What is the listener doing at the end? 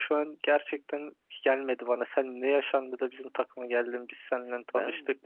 taking over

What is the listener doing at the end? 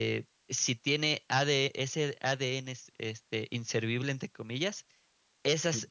listening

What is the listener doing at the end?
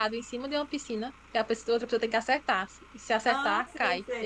taking over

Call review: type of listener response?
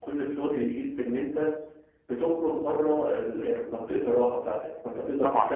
listening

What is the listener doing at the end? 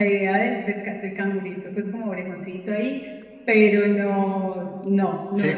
taking over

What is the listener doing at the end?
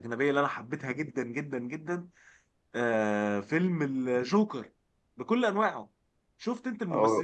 listening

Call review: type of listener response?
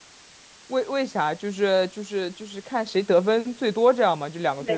taking over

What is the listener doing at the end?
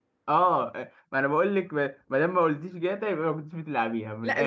taking over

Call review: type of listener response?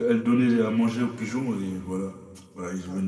taking over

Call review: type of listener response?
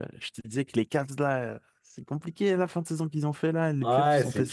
taking over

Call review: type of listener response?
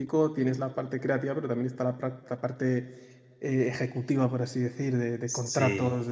listening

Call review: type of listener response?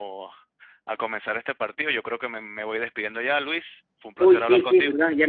taking over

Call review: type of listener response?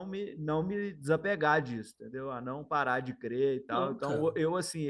listening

